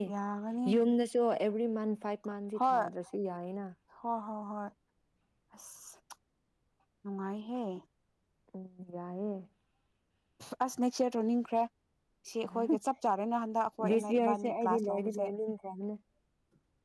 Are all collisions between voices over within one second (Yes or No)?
No